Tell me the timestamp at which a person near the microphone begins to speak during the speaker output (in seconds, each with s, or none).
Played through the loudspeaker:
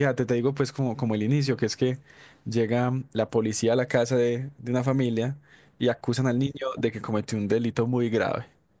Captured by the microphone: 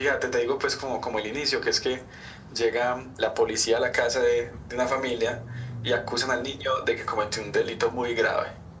none